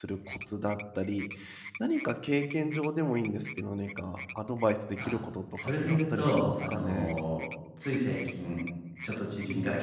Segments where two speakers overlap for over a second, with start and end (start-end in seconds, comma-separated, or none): 5.6-7.1